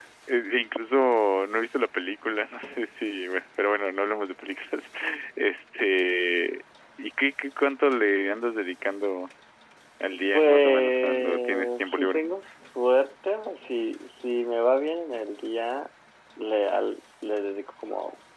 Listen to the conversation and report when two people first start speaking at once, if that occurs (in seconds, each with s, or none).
10.3 s